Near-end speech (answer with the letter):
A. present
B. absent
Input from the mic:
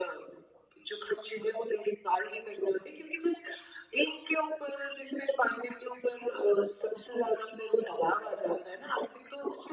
B